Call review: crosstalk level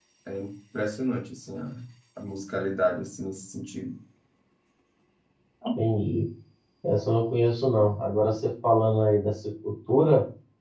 none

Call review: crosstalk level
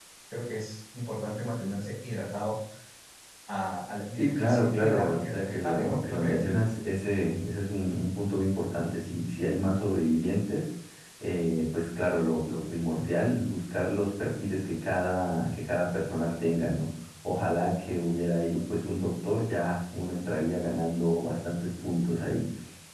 present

